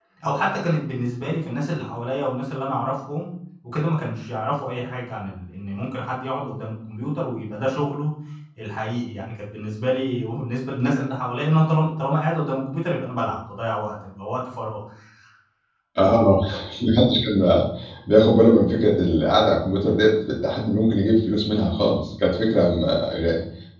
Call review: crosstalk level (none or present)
none